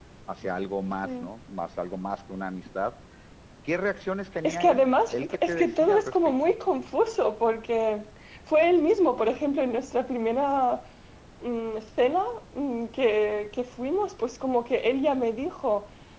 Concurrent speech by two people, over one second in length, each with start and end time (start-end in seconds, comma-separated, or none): 4.4-6.6